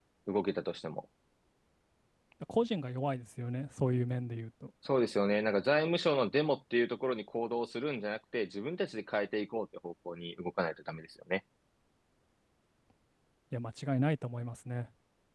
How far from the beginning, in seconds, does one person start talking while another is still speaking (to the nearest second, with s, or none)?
none